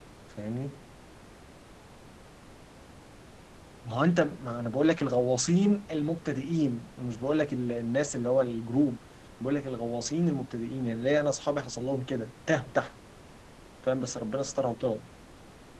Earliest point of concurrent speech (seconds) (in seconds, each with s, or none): none